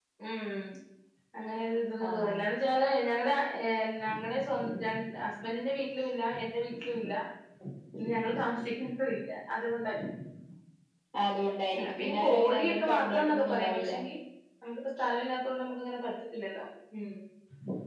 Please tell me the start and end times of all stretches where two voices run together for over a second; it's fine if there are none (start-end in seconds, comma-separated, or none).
12.0-13.9